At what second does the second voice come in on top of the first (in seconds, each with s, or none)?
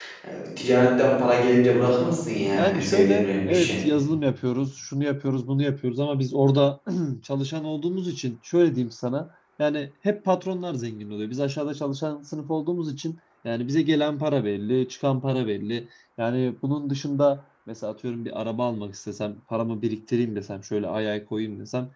2.5 s